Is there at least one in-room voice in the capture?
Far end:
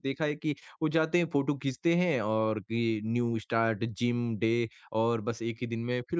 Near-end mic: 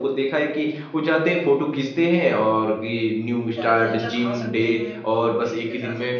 Yes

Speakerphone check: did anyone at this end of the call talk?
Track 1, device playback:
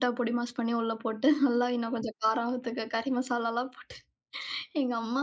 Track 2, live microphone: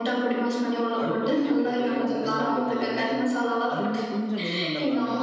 Yes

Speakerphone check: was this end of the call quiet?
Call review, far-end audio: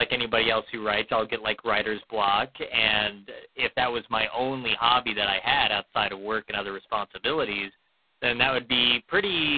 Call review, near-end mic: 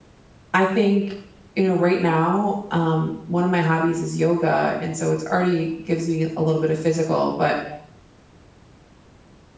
No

